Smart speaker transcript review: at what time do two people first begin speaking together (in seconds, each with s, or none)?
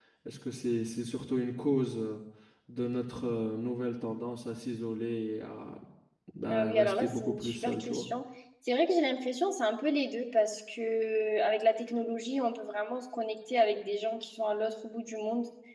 6.5 s